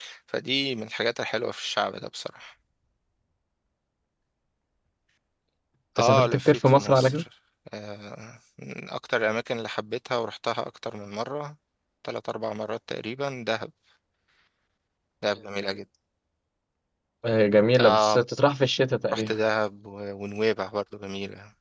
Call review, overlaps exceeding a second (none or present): present